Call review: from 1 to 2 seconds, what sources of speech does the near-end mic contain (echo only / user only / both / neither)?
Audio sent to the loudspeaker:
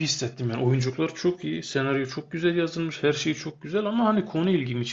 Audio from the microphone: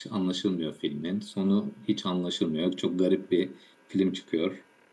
user only